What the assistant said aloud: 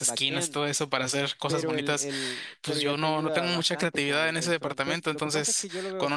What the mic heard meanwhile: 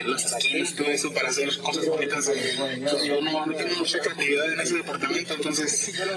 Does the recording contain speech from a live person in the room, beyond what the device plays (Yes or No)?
Yes